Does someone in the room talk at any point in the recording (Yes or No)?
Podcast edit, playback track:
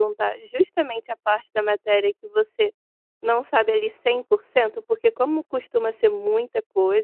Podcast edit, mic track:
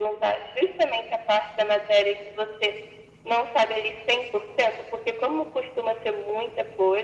No